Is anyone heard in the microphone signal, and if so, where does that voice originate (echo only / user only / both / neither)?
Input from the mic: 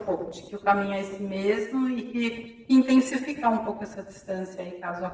echo only